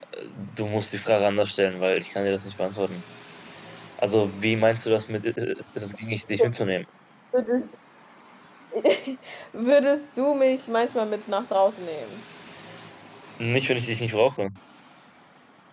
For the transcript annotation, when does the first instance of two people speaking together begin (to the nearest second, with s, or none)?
none